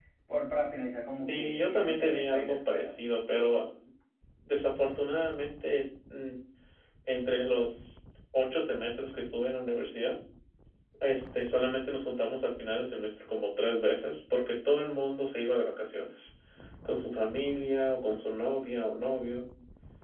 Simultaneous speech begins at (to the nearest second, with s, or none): 1 s